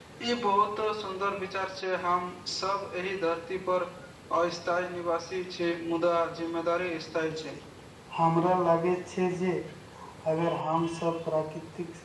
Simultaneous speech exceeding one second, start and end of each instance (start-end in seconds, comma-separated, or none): none